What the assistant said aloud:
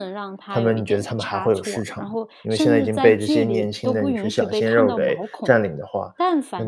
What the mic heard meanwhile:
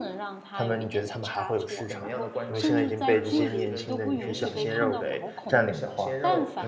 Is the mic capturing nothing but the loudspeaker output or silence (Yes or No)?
No